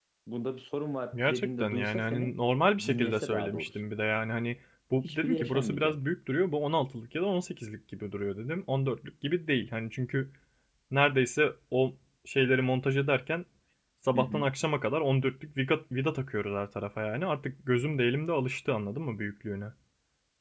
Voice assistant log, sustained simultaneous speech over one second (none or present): present